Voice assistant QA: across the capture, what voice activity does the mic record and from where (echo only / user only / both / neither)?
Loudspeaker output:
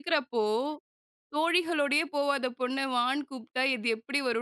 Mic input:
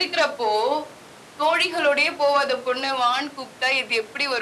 echo only